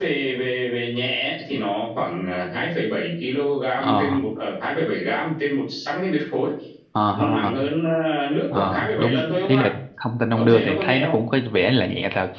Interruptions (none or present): present